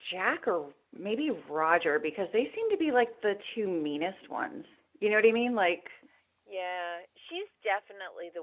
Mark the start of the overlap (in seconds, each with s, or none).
none